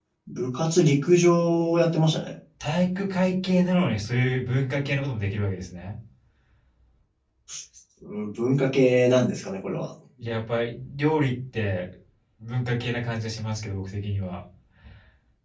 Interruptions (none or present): none